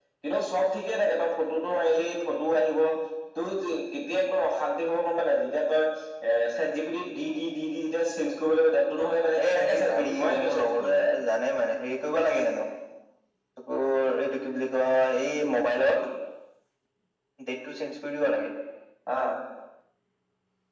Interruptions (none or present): present